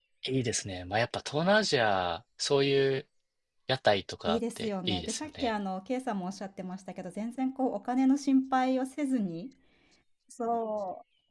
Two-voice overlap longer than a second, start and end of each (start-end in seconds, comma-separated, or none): 4.2-5.5